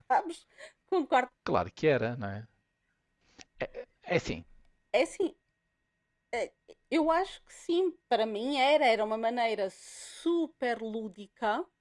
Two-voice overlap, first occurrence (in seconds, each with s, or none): none